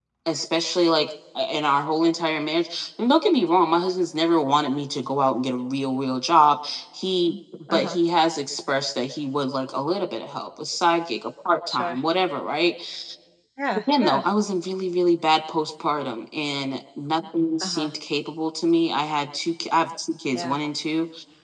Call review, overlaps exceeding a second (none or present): none